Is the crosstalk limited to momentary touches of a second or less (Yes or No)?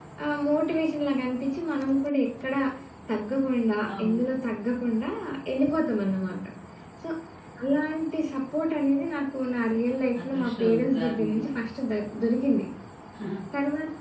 No